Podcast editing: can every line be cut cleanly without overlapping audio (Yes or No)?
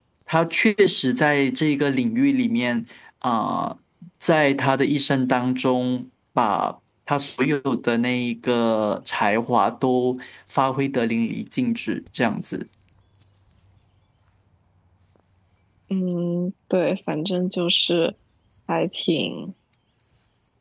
Yes